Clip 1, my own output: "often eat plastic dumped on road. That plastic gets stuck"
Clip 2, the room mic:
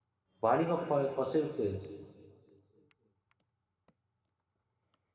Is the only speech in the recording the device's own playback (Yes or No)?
No